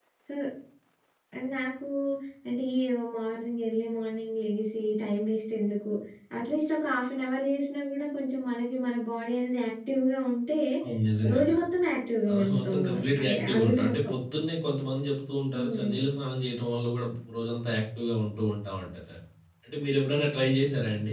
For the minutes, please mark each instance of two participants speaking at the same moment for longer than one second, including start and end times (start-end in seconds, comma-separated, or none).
12.3-14.1